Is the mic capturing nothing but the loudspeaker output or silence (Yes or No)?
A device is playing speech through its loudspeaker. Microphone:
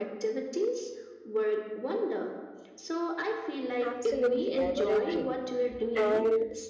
No